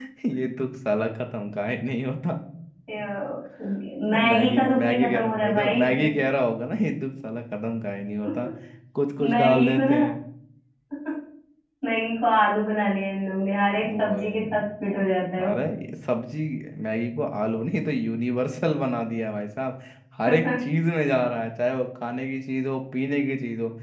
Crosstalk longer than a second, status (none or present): present